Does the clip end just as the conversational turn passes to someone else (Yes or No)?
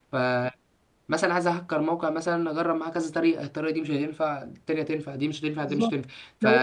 No